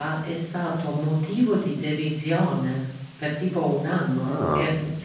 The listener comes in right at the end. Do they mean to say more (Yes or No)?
No